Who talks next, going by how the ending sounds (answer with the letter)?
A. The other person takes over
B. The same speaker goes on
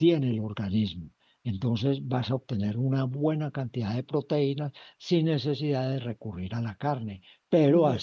B